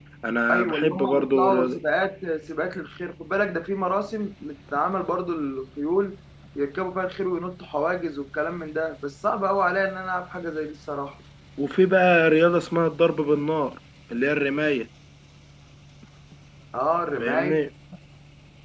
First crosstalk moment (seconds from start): 0.5 s

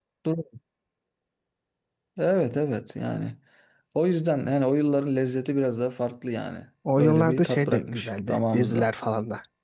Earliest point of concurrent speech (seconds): 6.8 s

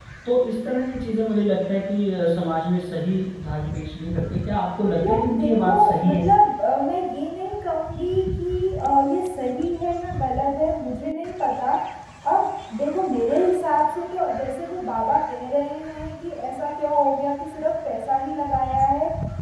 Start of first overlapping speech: 5.0 s

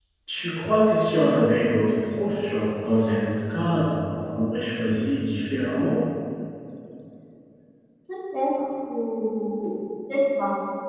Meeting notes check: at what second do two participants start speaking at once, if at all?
none

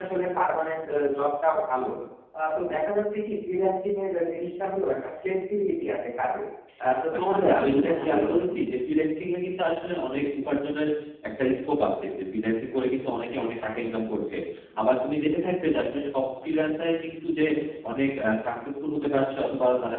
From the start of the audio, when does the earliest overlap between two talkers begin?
7.2 s

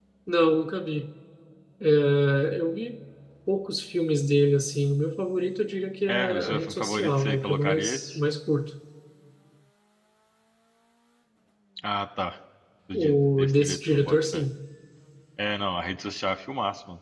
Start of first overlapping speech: 6.1 s

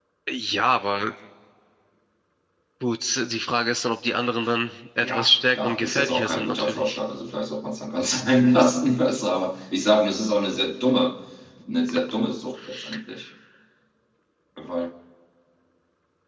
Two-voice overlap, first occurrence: 5.0 s

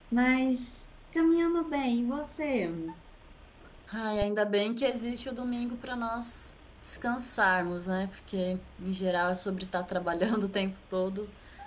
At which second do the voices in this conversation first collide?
none

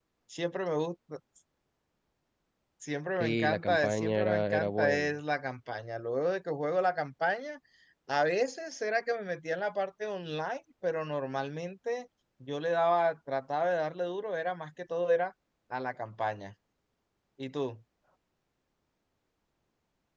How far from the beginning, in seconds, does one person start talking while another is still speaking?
3.2 s

